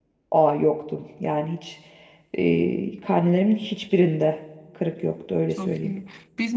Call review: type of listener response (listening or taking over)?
taking over